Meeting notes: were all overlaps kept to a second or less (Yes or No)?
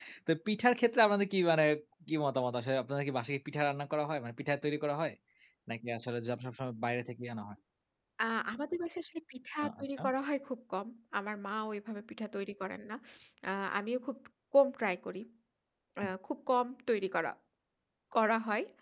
Yes